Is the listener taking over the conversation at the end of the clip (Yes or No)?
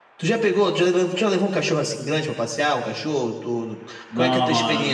Yes